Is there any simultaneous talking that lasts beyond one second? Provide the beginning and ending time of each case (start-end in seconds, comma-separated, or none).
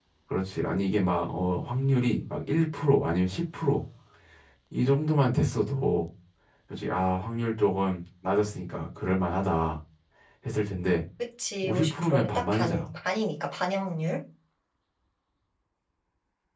11.6-12.9